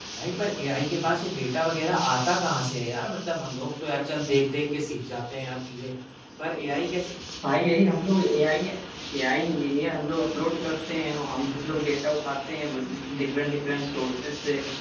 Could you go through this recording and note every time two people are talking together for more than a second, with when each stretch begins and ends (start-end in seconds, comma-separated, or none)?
none